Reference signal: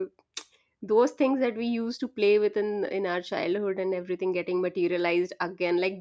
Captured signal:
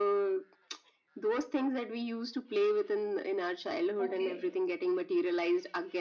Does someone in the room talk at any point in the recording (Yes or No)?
Yes